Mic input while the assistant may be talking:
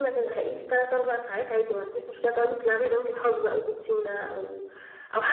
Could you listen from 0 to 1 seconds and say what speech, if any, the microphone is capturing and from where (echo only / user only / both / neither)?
echo only